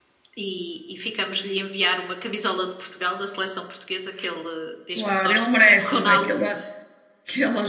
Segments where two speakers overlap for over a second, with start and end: 5.0-6.3

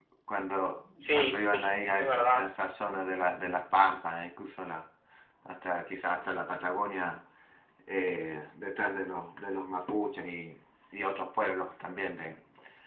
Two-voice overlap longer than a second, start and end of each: 1.0-2.5

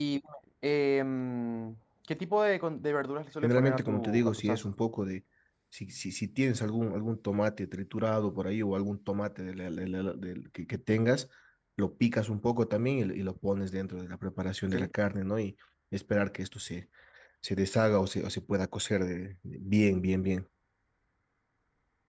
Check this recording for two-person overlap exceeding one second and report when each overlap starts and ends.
3.4-4.7

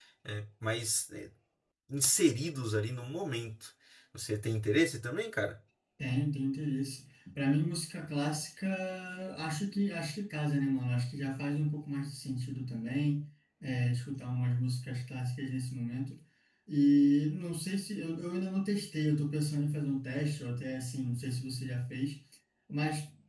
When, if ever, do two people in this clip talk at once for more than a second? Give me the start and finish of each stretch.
none

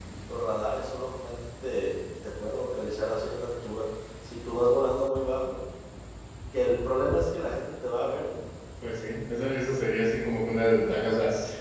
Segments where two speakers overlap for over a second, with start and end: none

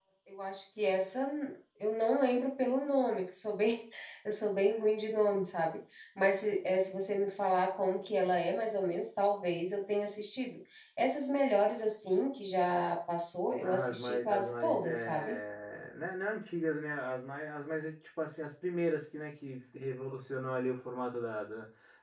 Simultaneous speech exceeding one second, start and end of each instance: 13.6-15.3

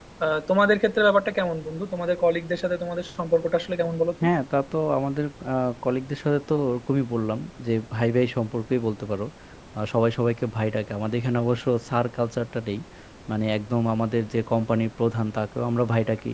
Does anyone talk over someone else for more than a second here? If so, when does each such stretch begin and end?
none

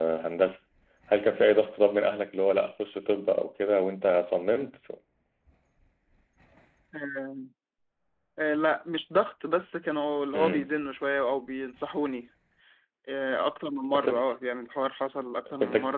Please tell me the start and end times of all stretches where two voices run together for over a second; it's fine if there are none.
none

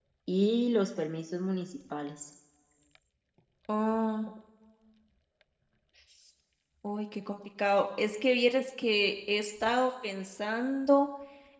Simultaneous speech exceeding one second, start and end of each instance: none

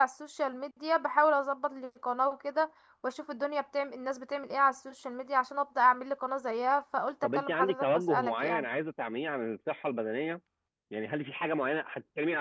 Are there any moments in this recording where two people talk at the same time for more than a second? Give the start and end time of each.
7.3-8.6

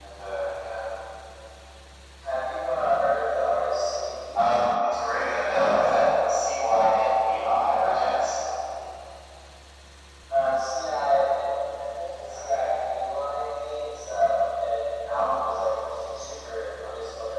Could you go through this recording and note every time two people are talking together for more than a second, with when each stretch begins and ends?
none

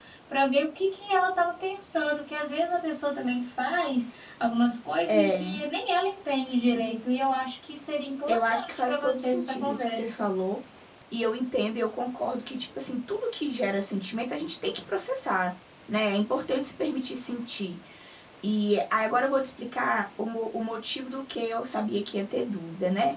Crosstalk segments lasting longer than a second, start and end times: 8.3-10.2

